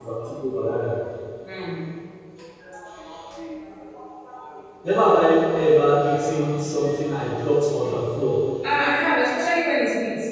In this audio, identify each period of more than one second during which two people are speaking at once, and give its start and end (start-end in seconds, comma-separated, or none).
none